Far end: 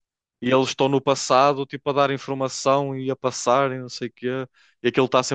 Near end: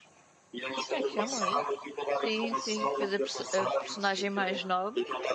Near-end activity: present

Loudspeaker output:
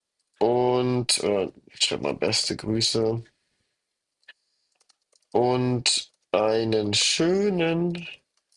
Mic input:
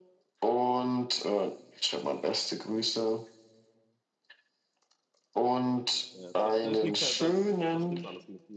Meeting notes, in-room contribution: present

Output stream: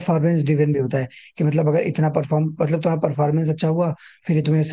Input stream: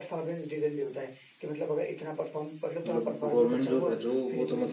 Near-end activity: present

